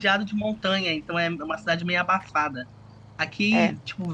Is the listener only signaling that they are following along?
Yes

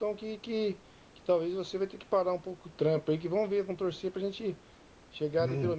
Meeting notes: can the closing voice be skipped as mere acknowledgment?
Yes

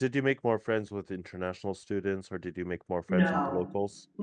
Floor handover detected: Yes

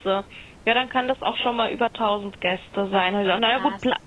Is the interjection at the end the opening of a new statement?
No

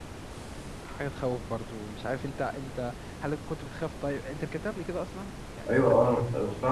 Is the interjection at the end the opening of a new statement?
Yes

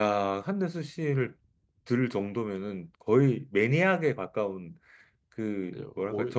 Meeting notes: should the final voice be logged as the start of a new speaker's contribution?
Yes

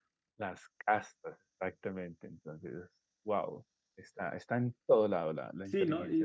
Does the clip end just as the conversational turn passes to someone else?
Yes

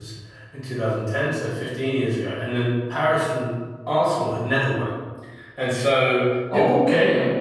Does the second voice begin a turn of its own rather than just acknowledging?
Yes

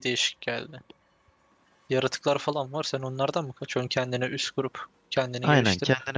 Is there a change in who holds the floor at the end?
Yes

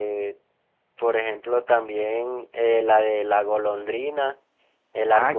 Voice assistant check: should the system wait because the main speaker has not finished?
No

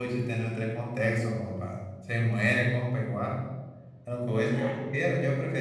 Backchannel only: Yes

